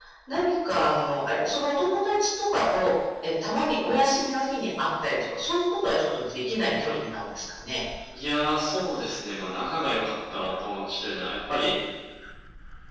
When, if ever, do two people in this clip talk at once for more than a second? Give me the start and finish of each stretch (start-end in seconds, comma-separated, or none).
none